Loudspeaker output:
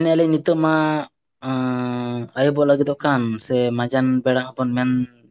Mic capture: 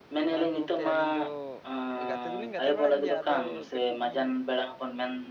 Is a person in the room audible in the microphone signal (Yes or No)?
Yes